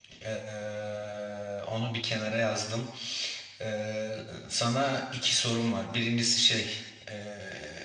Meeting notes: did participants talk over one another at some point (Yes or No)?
No